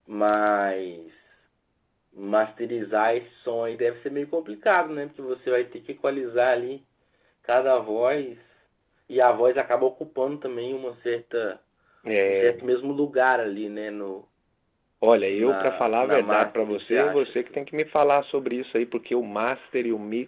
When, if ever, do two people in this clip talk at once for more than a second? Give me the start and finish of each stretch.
15.3-17.3

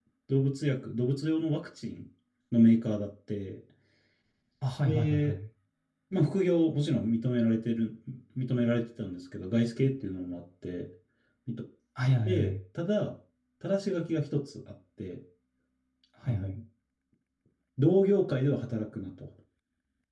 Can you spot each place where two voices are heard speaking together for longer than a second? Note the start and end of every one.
none

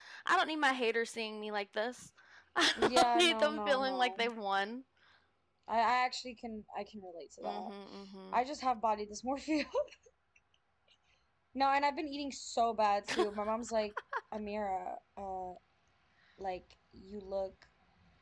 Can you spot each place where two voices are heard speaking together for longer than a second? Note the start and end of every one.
2.8-4.3

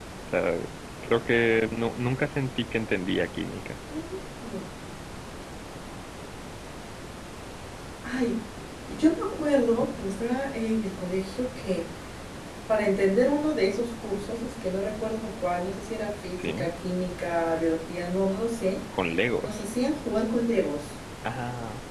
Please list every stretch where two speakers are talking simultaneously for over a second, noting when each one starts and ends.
none

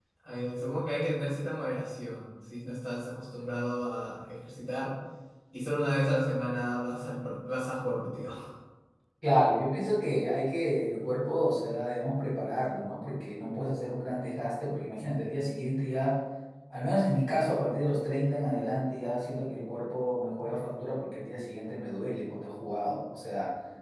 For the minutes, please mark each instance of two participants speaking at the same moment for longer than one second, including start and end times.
none

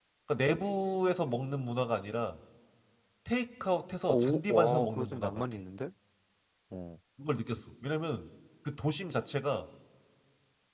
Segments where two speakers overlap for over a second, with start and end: 4.1-5.4

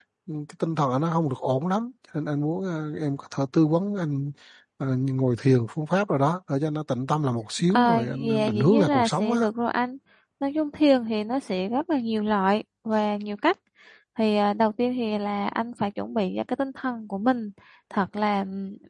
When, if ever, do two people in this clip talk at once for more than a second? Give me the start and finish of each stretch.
7.7-9.4

